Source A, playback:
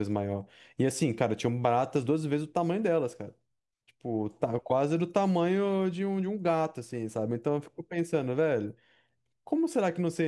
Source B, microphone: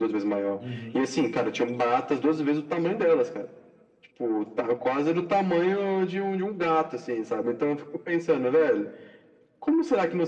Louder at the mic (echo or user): echo